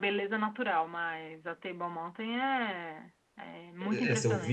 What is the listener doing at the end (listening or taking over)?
taking over